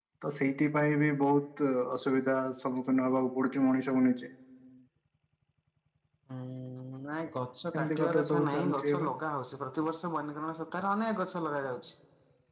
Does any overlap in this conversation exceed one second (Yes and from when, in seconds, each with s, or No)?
Yes, from 7.7 s